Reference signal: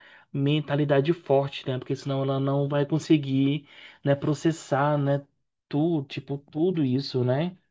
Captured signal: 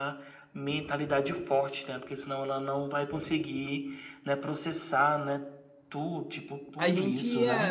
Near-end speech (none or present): present